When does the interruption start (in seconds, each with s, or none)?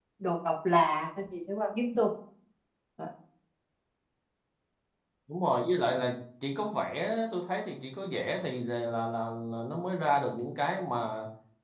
none